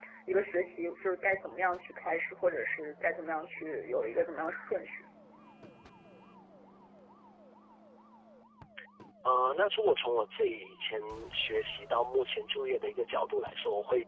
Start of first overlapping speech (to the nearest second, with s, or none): none